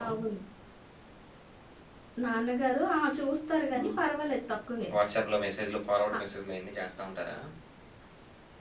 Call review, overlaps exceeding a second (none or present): none